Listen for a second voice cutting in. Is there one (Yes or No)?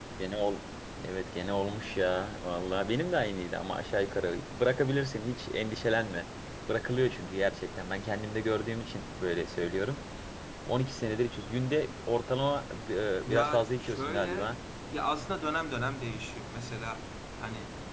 Yes